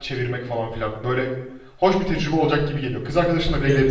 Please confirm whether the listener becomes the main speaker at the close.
Yes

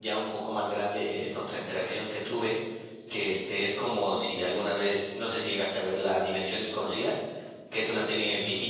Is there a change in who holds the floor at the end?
No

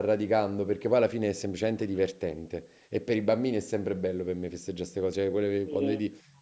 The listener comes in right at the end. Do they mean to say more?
No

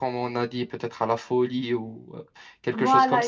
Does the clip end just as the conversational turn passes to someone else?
Yes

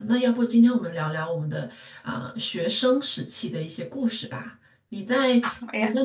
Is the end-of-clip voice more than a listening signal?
No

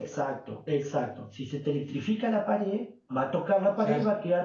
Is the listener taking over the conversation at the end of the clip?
No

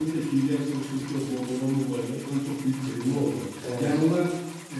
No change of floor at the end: Yes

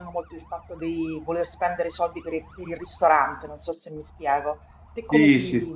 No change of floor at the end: No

